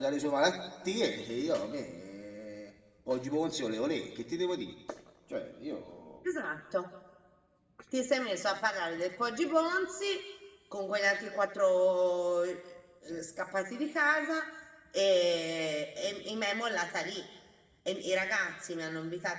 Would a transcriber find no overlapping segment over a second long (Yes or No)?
Yes